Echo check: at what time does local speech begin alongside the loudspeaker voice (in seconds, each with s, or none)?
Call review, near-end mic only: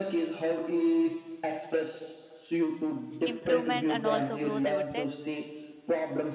3.2 s